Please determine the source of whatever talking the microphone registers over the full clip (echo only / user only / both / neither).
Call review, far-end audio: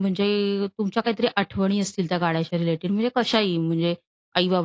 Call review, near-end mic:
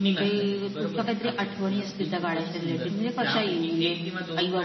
both